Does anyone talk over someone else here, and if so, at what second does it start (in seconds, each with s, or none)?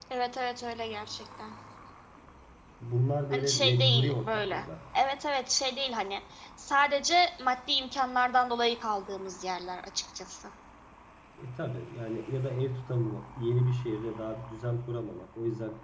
3.3 s